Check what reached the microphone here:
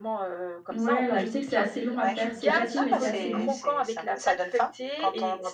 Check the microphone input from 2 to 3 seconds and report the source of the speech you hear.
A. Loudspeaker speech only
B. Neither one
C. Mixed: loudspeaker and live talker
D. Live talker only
C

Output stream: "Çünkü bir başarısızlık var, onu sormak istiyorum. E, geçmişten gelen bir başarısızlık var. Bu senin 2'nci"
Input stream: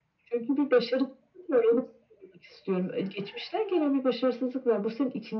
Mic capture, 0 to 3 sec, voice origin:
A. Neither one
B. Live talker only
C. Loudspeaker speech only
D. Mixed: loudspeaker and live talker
C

